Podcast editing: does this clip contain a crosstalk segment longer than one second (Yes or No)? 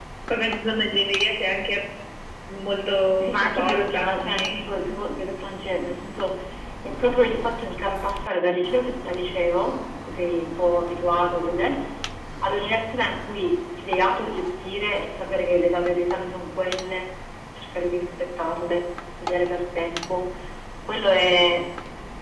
Yes